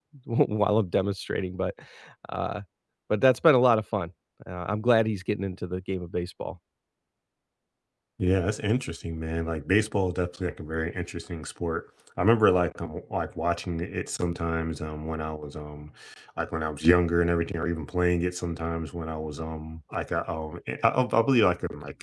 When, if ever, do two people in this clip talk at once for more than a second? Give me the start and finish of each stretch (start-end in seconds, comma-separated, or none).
none